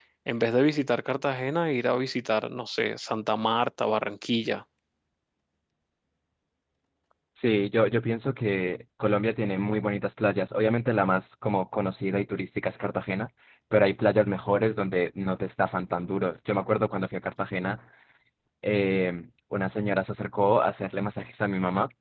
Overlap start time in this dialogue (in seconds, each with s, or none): none